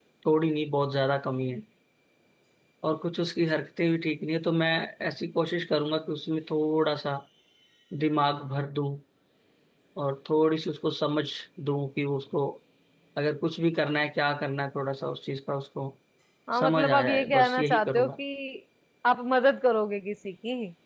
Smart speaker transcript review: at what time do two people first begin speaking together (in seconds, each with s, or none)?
16.6 s